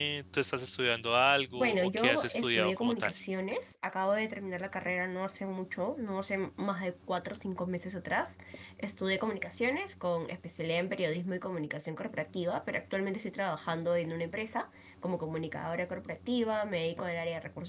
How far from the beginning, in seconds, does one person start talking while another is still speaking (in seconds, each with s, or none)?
1.6 s